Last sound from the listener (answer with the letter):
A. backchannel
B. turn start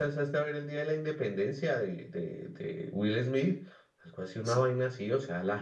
A